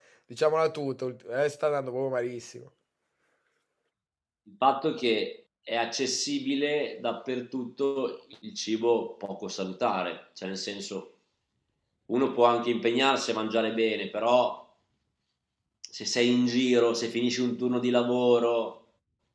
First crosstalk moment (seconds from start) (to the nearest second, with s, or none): none